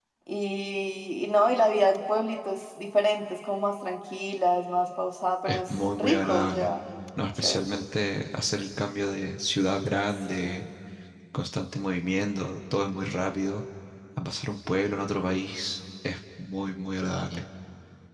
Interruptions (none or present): present